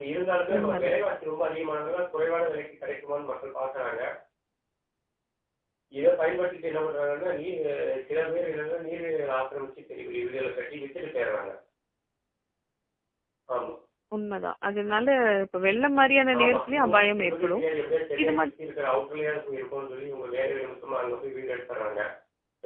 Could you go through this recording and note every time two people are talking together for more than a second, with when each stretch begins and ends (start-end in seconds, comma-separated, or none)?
16.4-17.6